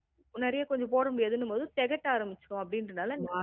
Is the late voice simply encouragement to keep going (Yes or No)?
No